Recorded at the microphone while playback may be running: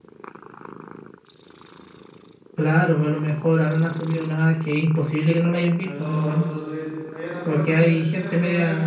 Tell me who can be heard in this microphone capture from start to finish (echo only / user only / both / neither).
both